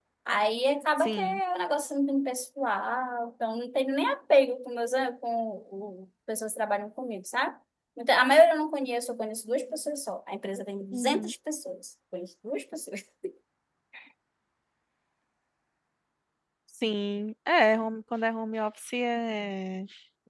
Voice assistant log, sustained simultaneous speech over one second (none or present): none